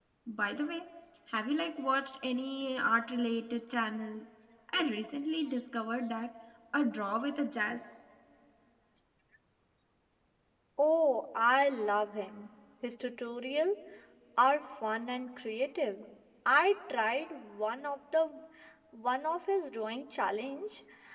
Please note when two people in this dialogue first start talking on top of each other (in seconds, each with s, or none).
none